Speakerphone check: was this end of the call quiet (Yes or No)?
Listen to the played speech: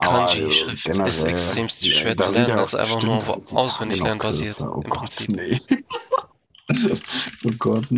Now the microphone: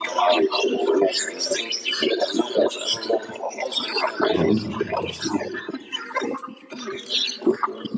No